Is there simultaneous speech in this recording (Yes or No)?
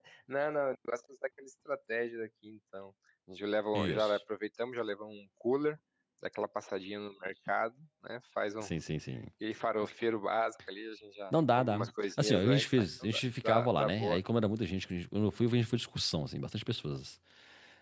Yes